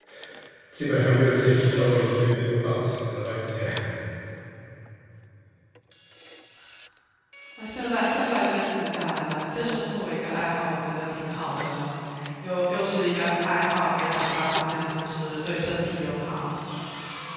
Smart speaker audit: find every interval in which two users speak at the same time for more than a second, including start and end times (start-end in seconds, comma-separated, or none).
none